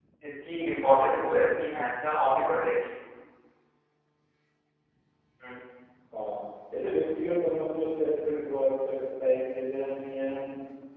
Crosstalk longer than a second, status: none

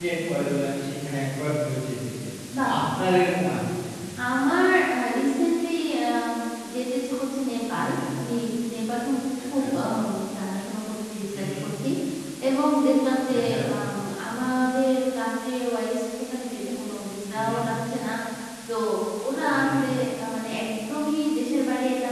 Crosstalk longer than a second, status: none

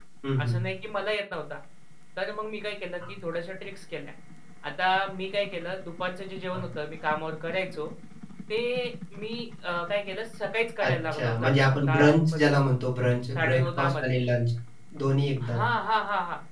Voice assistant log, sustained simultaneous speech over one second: present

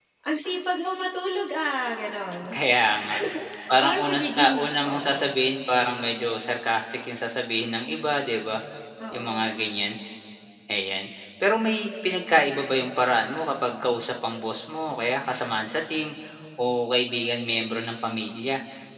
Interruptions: present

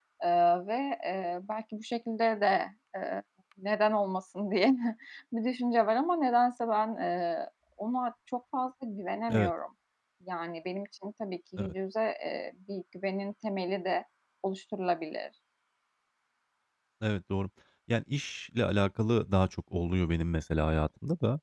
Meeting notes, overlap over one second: none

